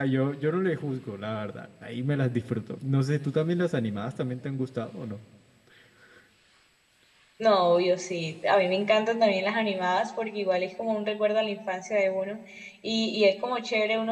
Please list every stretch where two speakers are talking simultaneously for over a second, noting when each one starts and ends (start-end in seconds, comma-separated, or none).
none